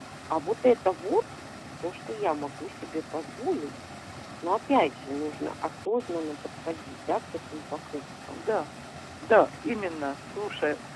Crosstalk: none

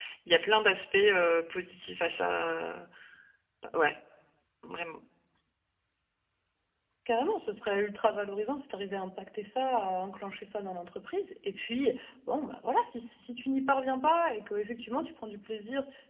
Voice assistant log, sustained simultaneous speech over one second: none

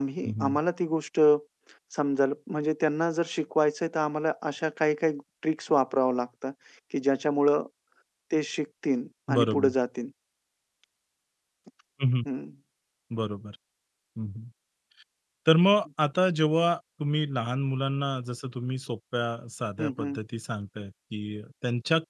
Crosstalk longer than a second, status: none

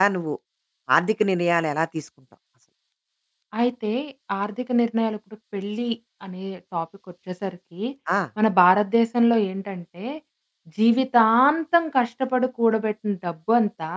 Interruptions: none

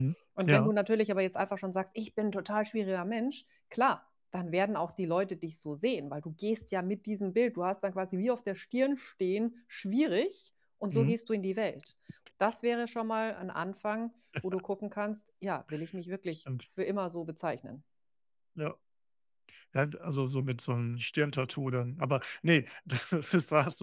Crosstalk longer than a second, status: none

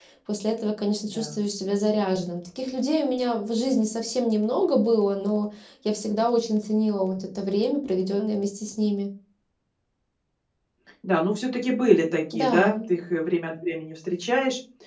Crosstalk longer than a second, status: none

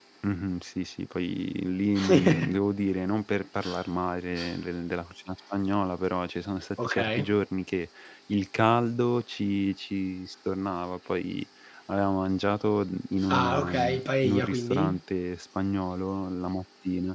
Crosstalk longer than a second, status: present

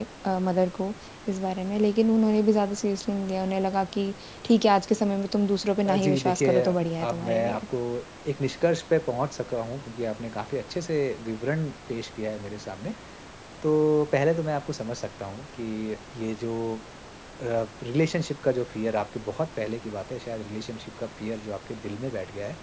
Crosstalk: present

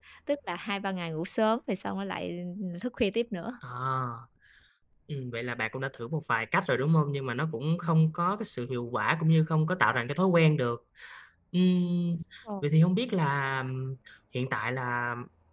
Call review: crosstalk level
none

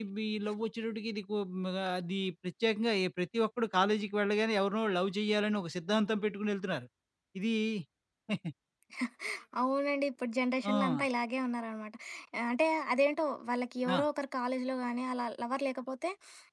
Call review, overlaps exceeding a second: none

